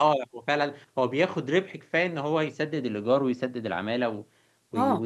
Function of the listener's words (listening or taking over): taking over